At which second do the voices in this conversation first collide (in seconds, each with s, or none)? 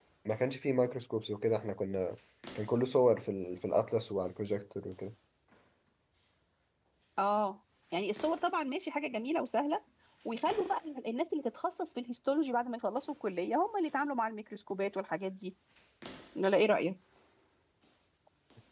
none